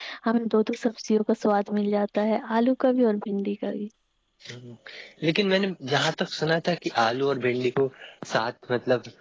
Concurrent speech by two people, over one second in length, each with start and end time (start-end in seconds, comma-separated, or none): none